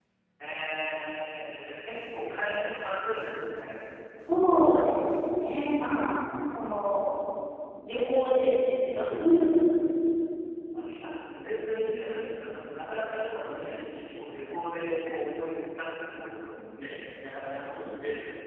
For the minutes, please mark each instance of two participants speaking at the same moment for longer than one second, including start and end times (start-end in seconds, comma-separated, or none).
none